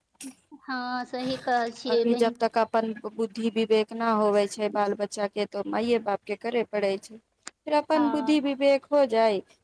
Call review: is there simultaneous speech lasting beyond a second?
No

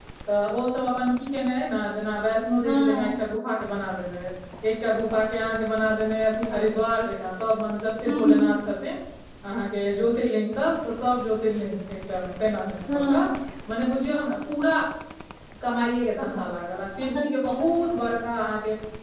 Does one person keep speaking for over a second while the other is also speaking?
No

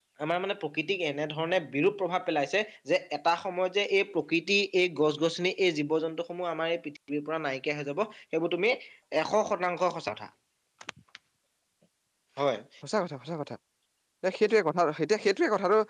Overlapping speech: No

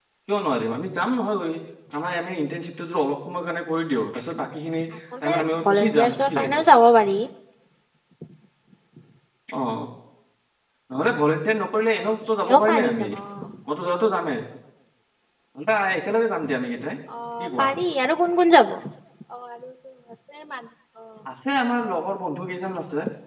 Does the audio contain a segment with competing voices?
Yes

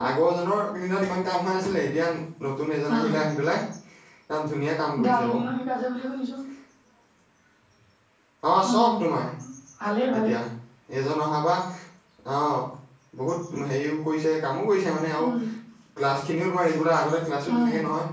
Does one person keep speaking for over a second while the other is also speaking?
No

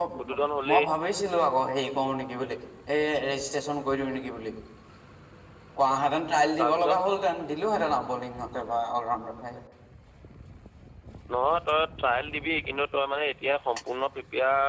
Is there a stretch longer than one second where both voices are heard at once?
No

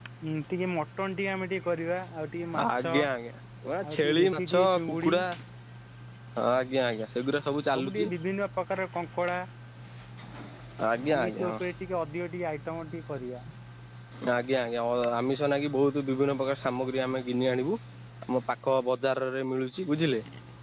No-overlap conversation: No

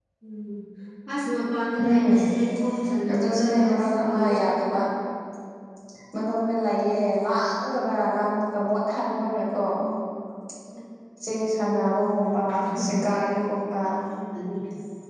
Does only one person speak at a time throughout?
No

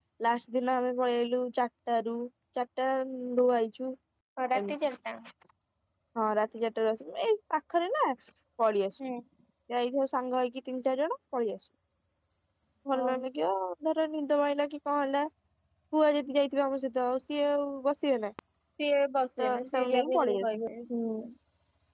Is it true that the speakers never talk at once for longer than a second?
No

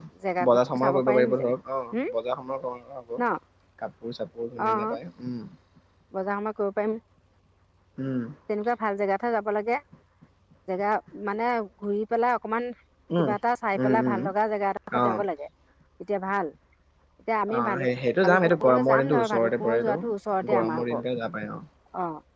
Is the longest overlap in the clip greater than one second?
Yes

